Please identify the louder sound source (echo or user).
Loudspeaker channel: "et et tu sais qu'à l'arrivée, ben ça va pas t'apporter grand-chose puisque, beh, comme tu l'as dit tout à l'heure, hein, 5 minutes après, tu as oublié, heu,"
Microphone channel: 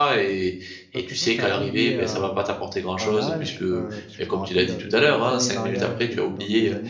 echo